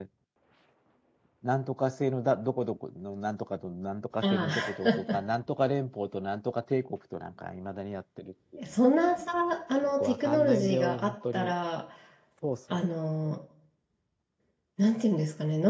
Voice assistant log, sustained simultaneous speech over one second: present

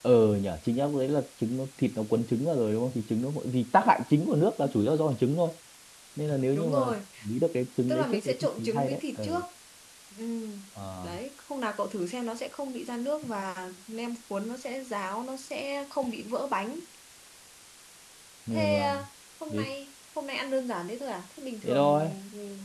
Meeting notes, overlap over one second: present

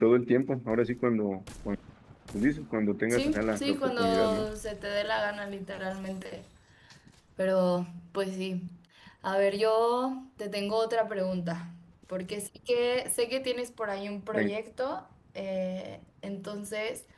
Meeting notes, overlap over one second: present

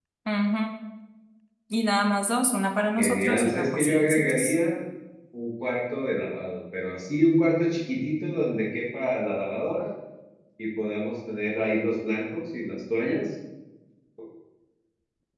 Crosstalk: present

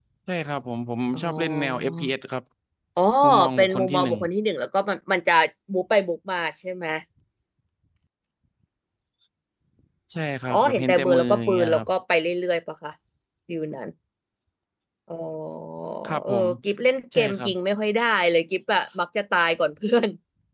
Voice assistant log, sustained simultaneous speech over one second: present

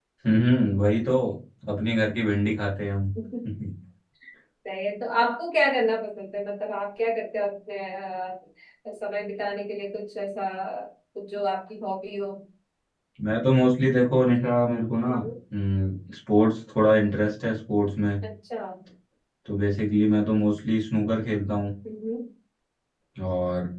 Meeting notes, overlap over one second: none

